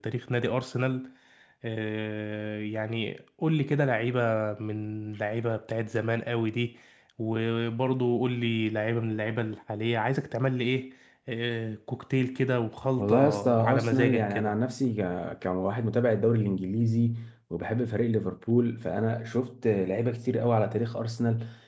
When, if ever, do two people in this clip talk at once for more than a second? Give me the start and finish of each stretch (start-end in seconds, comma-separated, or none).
13.0-14.5